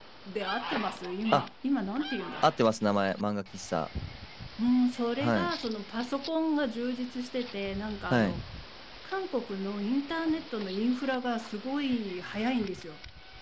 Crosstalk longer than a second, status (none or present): none